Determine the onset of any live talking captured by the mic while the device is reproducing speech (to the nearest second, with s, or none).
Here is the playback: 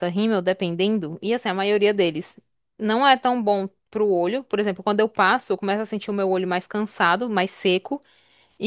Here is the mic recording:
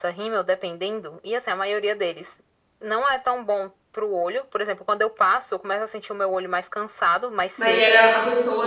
8 s